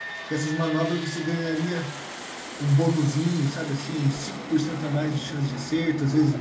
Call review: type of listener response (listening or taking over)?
taking over